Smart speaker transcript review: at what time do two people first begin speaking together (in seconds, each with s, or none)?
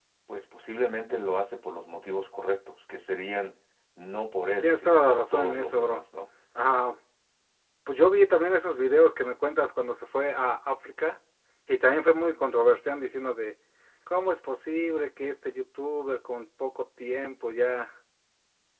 4.6 s